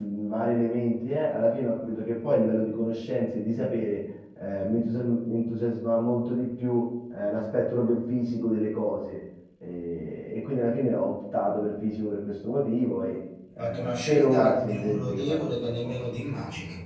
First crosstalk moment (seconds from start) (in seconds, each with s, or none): 13.6 s